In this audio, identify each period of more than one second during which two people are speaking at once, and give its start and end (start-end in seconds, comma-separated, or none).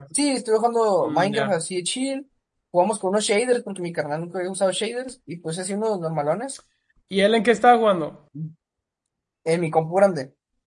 none